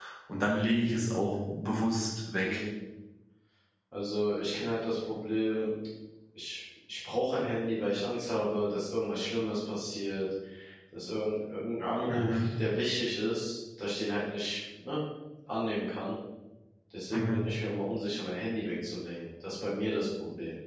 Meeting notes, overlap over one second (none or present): none